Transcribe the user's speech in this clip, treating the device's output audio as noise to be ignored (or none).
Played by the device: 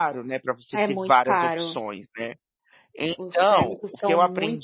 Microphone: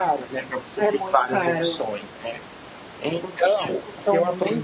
none